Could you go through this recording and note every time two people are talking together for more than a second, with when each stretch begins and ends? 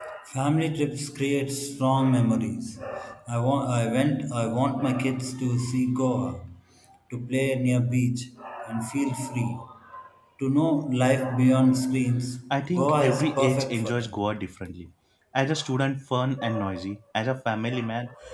12.5-14.2

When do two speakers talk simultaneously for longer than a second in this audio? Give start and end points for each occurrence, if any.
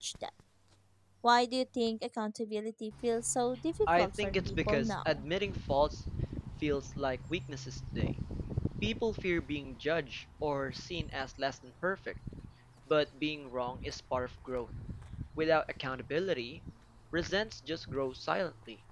3.9-5.2

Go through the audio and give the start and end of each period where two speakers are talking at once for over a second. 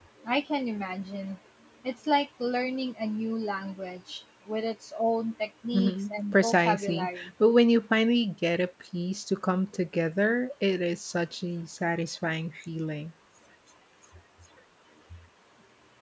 5.7-7.3

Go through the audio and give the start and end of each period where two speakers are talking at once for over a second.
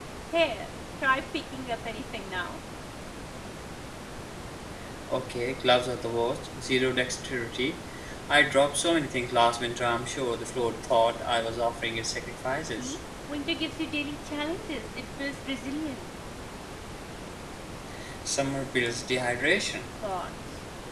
none

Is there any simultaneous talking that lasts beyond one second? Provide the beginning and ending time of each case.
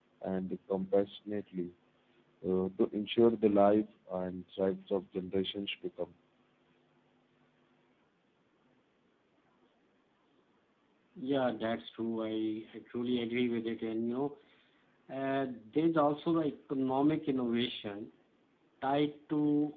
none

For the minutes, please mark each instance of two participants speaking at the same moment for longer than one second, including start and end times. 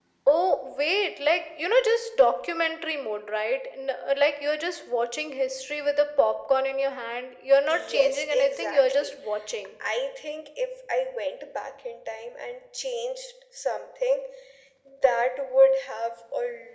7.7-9.1

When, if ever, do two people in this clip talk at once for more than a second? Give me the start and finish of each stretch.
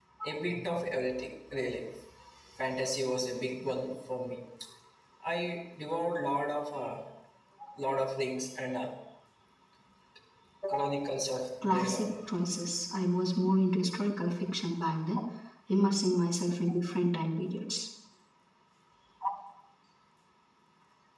none

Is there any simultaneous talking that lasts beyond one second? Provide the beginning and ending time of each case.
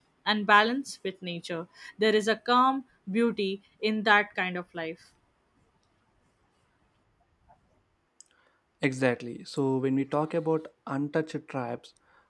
none

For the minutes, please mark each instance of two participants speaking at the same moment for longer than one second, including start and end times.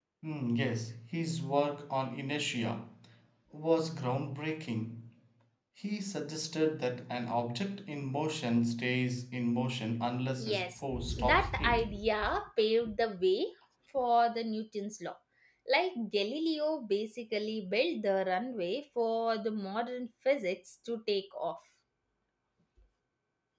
10.4-11.9

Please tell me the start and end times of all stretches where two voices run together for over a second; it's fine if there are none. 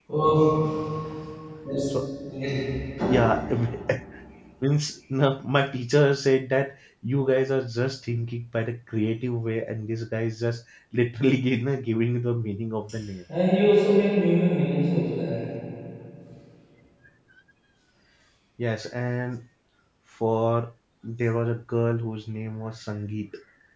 none

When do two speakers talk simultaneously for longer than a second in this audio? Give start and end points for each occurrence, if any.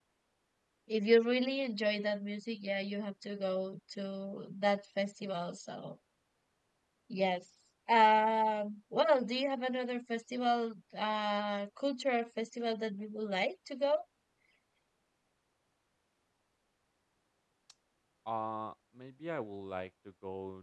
none

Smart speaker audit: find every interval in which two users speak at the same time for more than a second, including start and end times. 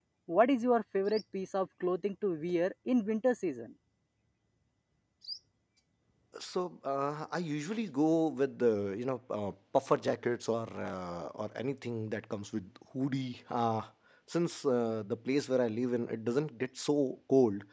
none

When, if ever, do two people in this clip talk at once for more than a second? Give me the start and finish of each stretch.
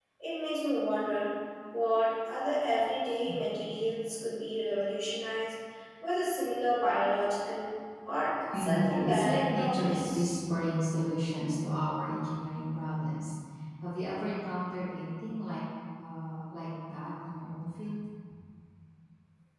8.5-10.2

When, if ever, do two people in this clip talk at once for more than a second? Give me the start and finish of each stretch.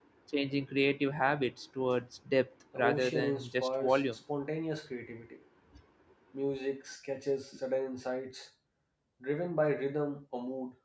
2.8-4.0

